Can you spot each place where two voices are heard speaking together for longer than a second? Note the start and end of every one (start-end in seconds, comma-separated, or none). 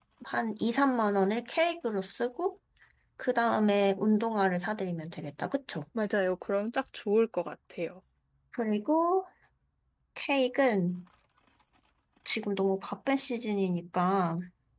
none